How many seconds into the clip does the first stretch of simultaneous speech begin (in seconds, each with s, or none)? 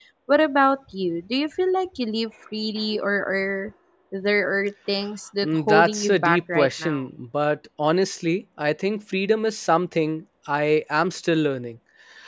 5.4 s